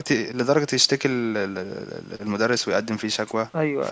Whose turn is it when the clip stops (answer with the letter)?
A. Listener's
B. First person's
B